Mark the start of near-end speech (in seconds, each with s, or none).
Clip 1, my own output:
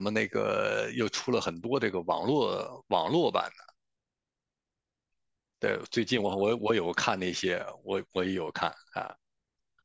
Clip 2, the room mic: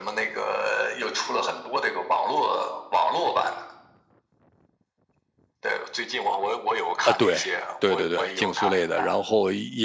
7.0 s